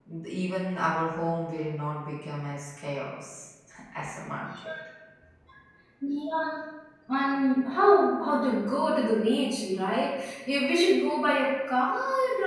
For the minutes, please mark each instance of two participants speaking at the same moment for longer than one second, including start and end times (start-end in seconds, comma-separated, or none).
none